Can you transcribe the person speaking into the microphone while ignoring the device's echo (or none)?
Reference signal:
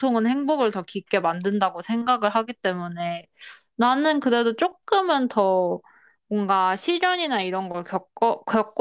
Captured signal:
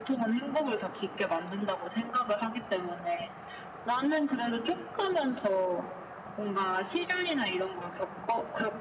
none